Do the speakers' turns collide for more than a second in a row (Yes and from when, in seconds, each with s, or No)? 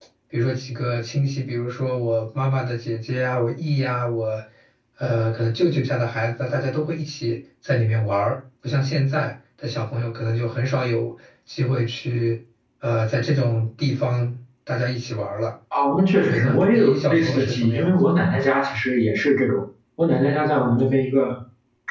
Yes, from 16.3 s